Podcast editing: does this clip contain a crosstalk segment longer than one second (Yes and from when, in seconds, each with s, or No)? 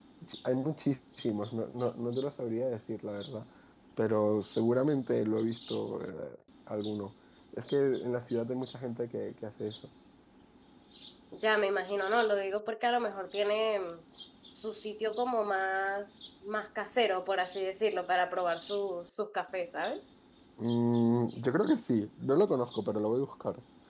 No